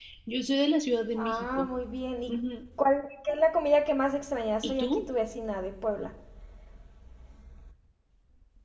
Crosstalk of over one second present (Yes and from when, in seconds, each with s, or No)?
No